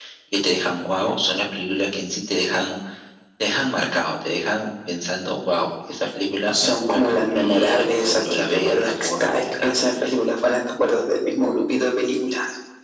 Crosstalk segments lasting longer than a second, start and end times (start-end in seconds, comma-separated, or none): 6.5-9.8